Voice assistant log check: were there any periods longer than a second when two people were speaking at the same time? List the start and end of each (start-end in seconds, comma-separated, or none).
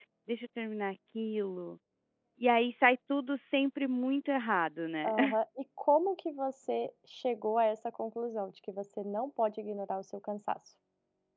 none